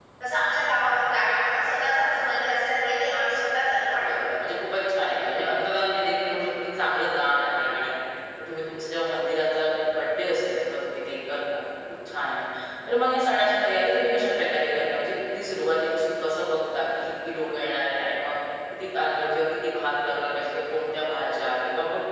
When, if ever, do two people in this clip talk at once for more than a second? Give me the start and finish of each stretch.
none

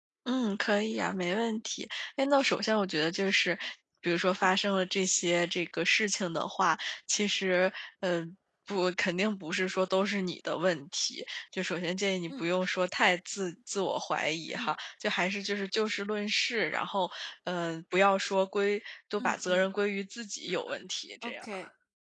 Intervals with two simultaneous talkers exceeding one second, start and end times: none

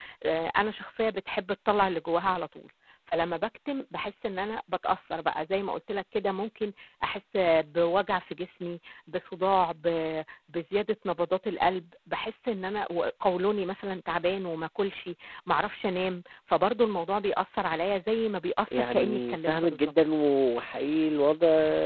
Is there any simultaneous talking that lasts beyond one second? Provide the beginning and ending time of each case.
18.7-19.9

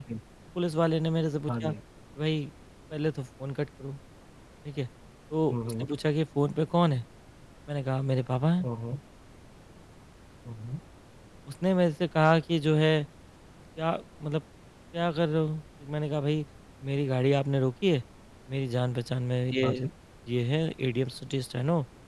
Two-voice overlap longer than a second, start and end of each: none

